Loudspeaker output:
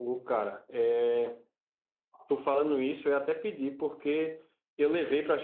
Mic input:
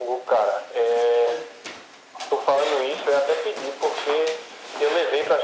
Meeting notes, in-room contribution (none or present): none